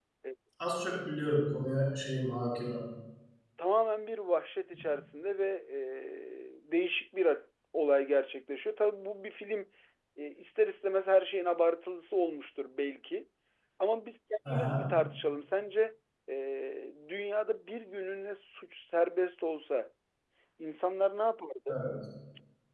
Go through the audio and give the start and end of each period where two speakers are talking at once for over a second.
none

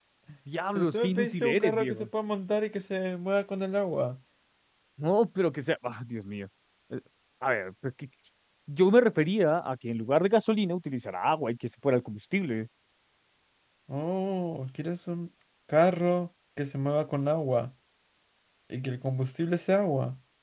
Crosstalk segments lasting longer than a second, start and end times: 0.8-2.1

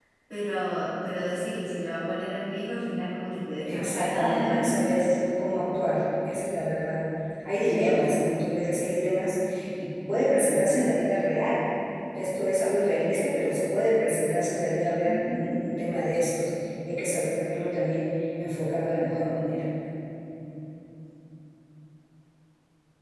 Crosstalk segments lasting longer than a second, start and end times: 3.7-5.1

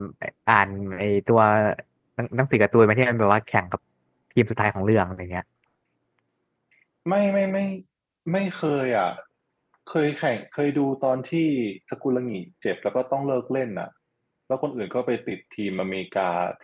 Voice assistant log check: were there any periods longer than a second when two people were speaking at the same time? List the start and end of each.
none

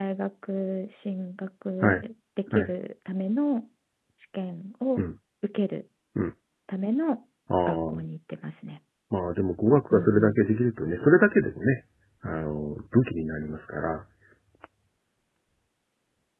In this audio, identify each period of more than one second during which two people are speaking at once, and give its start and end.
none

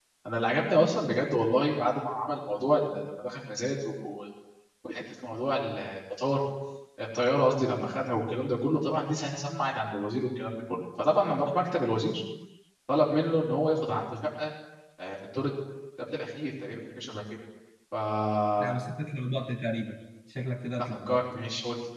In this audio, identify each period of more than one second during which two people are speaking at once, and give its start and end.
none

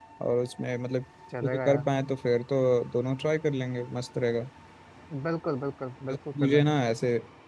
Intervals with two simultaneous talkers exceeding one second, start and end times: none

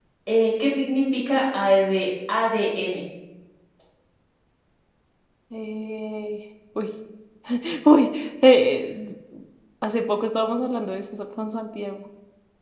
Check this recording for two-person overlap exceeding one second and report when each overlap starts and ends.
none

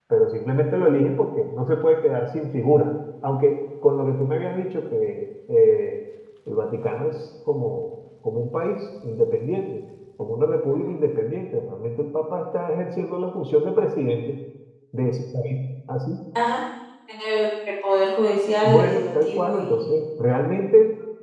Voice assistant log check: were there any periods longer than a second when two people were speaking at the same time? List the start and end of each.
18.6-20.0

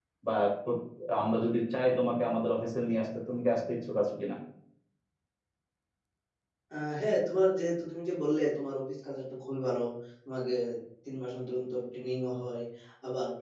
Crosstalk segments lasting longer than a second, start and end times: none

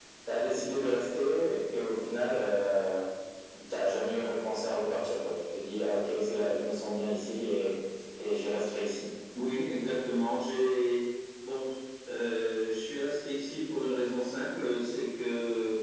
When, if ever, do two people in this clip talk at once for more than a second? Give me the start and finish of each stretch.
none

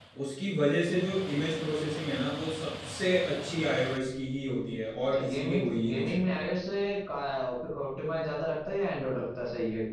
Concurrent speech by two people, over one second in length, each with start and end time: 5.0-6.5

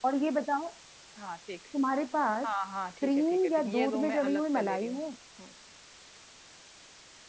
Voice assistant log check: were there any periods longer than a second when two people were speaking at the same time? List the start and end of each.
3.0-5.0

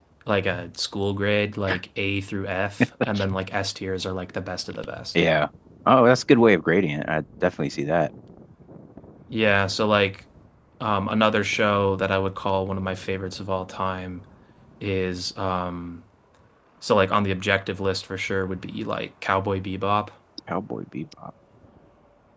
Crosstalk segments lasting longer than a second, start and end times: none

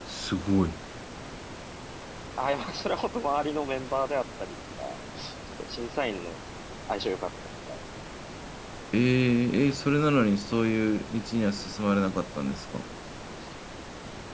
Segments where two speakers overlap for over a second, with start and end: none

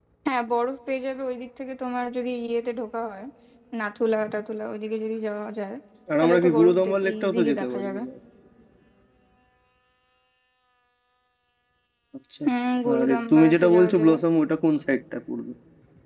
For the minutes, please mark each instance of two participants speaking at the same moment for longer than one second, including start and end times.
6.2-8.0, 13.0-14.2

